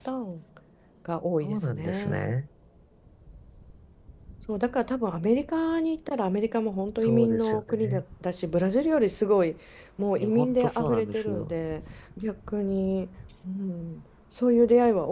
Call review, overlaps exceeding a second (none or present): present